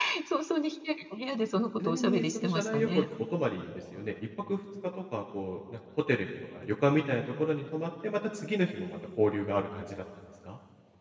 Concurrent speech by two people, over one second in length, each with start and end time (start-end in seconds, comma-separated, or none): 1.8-3.0